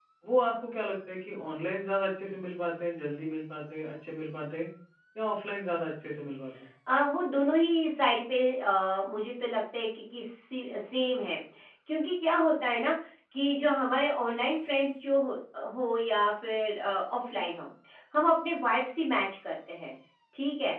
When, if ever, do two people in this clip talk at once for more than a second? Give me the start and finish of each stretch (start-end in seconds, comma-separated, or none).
none